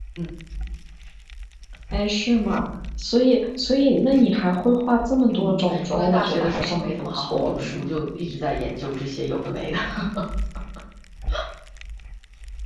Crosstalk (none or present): present